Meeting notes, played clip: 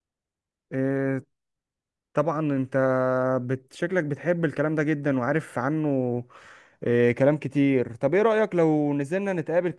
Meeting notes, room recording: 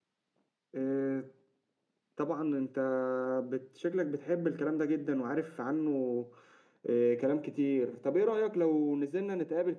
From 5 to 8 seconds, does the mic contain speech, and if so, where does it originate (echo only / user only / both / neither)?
echo only